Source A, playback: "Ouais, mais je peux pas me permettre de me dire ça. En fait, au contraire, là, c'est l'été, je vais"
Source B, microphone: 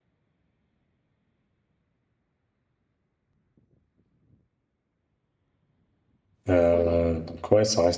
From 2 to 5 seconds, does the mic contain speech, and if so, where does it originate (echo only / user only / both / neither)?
neither